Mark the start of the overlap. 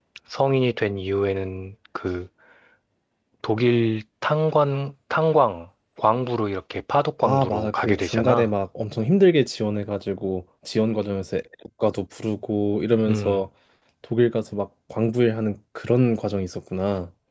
7.2 s

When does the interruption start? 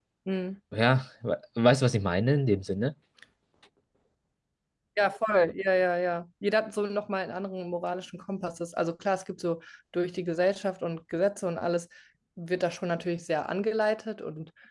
none

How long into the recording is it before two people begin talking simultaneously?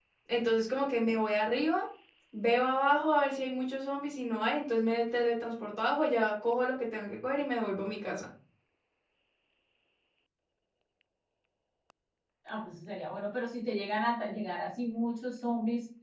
none

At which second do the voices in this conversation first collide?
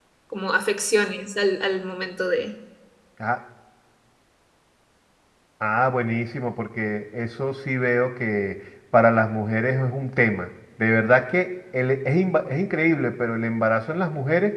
none

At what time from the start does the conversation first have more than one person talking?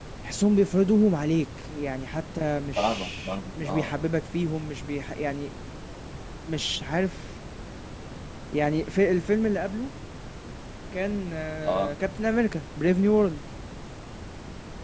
2.8 s

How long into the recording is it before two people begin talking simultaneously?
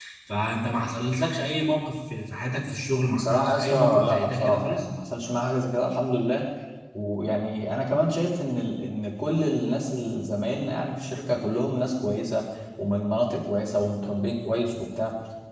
3.1 s

